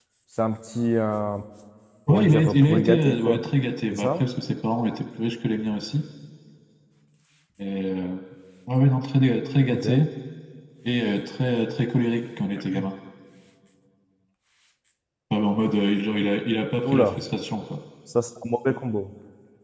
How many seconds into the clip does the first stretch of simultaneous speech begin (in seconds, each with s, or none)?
2.1 s